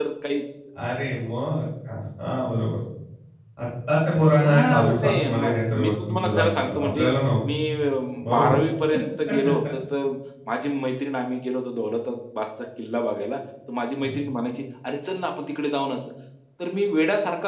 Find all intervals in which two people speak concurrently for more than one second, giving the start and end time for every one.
4.4-7.0

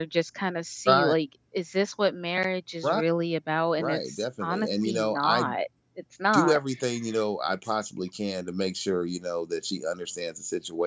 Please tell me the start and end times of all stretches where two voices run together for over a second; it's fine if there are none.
3.8-5.5

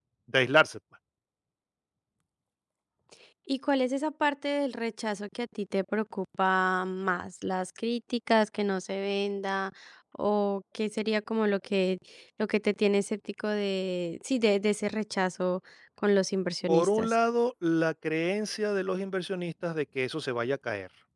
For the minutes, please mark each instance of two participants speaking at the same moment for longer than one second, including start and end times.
none

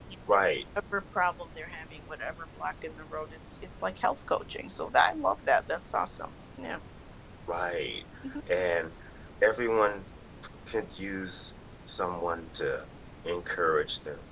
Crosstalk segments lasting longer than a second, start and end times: none

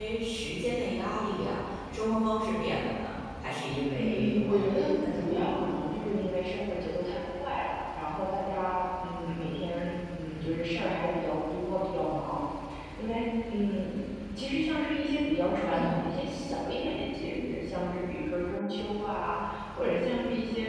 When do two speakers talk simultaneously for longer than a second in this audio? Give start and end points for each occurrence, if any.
4.0-5.2

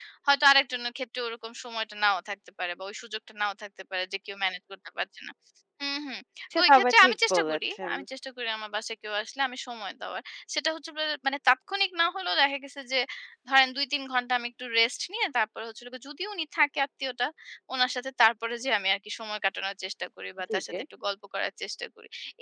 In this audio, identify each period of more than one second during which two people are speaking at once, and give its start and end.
6.6-7.9

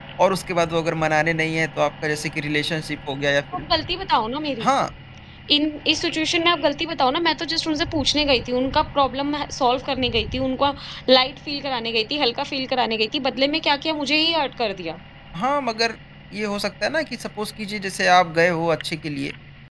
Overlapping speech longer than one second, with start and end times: none

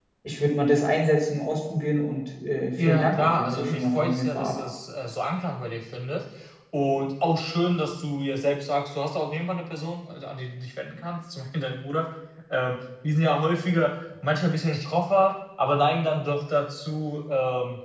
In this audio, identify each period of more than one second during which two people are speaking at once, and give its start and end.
2.8-4.6

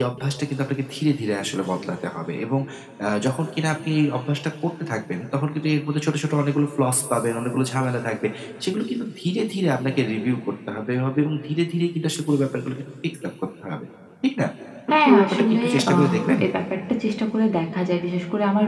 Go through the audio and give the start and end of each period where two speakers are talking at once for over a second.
14.9-16.4

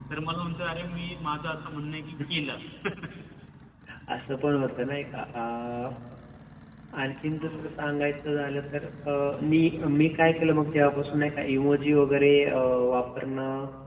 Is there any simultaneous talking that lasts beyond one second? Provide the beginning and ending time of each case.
none

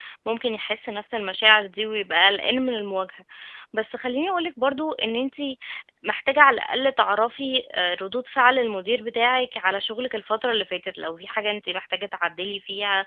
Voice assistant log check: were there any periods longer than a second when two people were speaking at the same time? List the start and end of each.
none

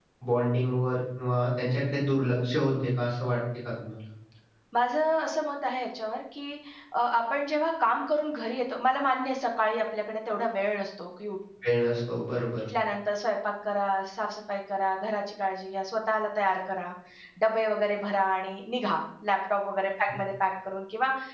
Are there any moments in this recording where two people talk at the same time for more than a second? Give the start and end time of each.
none

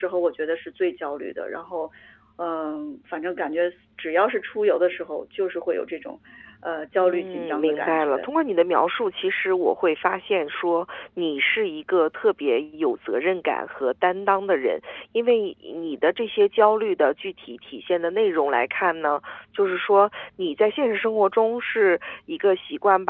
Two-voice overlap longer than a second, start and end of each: 7.0-8.3

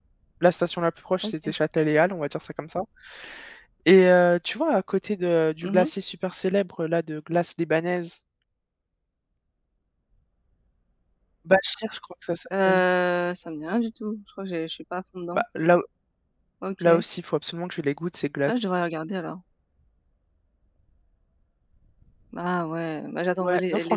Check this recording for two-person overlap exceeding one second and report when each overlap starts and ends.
none

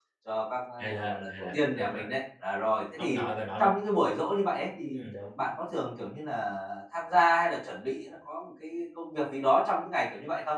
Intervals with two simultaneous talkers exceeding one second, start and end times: 0.8-2.1

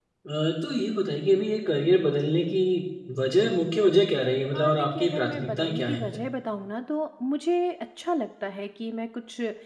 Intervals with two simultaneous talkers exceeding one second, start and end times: 4.5-6.2

